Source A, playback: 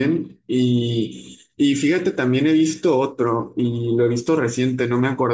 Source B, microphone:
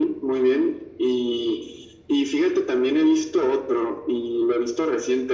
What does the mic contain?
echo only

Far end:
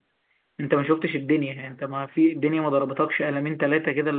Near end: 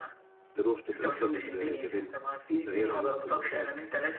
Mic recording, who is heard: both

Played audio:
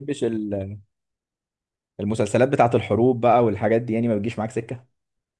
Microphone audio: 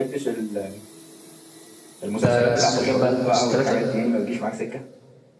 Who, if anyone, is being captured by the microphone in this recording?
both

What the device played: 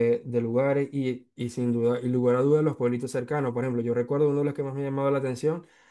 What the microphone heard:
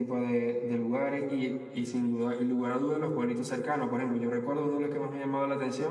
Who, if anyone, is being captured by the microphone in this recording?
echo only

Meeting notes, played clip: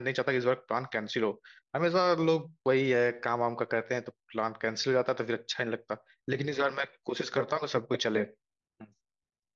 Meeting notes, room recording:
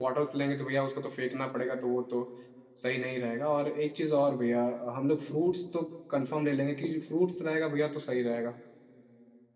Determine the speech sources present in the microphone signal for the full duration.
user only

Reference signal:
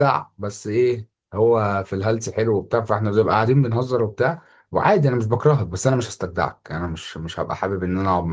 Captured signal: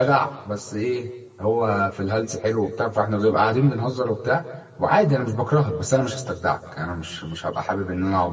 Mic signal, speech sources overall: echo only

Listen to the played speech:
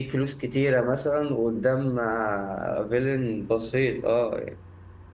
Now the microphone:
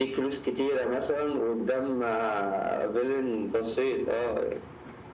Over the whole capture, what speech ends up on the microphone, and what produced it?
echo only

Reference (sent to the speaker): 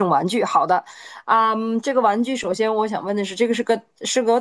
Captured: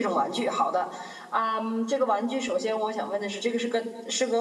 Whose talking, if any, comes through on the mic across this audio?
echo only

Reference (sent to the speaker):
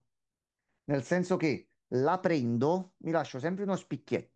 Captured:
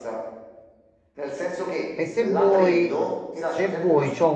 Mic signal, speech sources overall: both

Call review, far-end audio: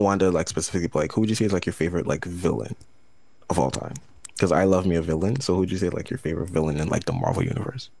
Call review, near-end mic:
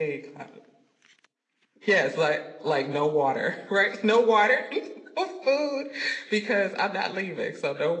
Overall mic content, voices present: user only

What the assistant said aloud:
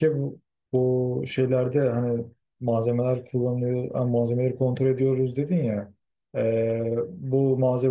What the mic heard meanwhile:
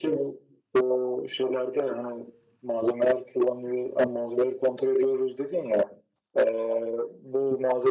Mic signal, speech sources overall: echo only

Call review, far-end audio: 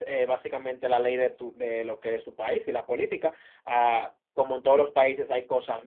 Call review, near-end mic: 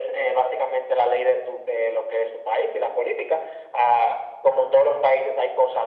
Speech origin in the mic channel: echo only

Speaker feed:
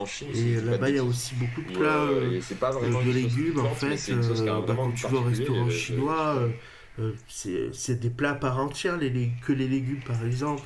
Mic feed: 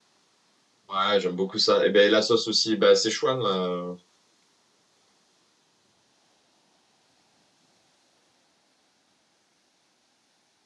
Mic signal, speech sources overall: user only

